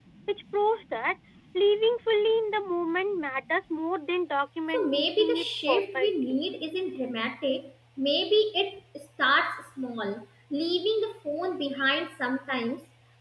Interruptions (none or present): present